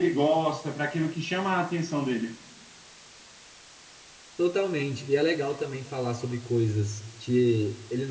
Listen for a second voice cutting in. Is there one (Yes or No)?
No